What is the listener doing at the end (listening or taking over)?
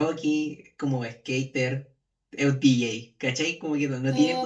taking over